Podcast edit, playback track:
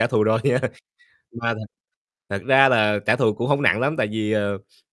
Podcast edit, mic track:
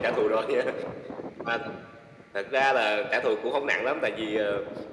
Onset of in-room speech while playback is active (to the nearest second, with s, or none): none